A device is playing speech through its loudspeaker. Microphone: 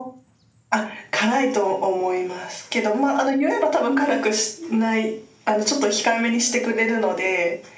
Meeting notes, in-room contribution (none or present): none